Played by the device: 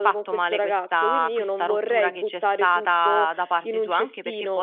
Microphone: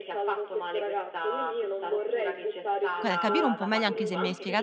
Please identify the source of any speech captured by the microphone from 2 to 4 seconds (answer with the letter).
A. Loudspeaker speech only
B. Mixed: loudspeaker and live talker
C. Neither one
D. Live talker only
B